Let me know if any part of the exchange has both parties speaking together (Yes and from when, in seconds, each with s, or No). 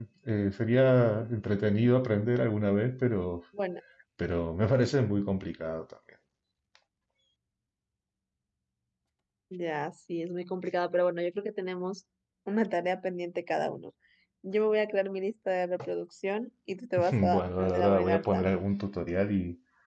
Yes, from 17.1 s